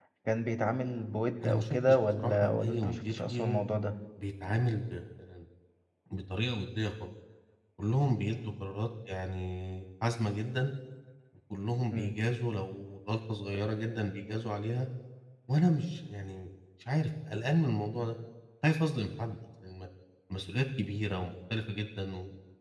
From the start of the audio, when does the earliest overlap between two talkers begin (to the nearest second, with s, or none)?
1 s